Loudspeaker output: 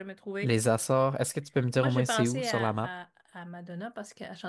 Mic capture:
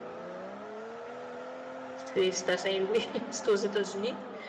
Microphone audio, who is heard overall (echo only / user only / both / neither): user only